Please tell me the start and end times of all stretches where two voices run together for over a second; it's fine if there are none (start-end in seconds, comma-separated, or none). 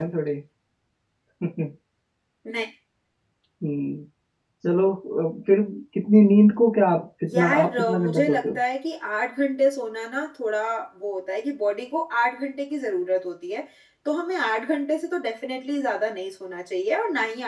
7.3-8.6